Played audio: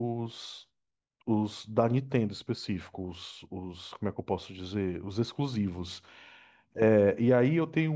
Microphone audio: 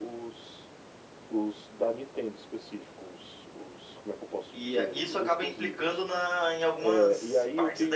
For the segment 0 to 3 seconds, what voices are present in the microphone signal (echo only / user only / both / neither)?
echo only